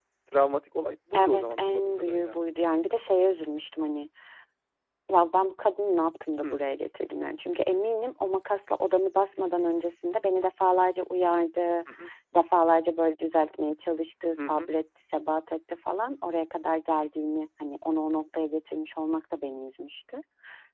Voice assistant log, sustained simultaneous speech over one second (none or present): present